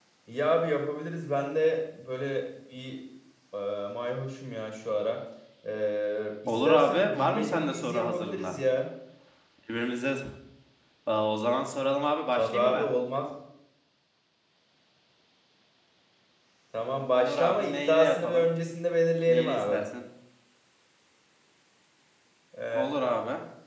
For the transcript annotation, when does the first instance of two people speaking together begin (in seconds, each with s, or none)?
6.5 s